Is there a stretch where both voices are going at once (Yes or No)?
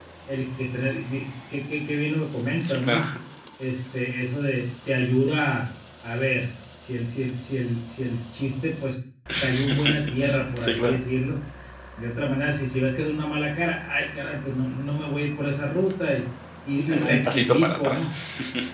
Yes